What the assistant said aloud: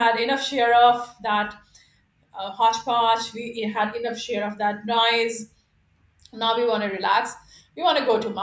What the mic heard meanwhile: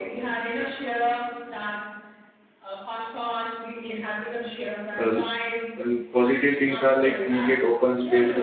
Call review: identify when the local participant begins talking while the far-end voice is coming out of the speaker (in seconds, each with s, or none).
5.0 s